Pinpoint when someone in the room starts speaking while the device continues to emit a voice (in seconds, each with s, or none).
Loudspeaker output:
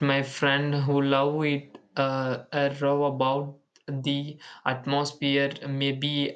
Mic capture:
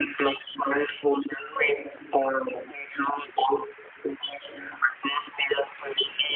none